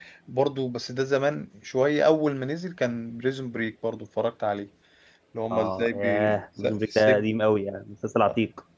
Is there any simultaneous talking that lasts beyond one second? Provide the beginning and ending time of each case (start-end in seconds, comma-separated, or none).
5.5-7.2